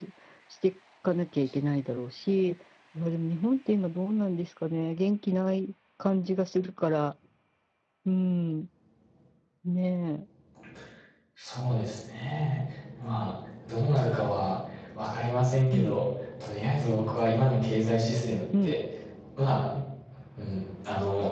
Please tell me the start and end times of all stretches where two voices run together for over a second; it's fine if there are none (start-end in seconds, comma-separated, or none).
none